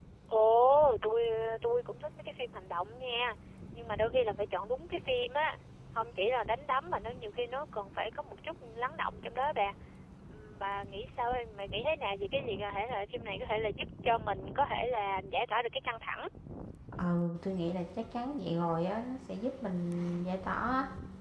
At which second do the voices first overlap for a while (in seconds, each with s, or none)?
none